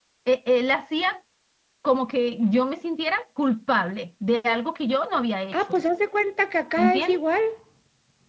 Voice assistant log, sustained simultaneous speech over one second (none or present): none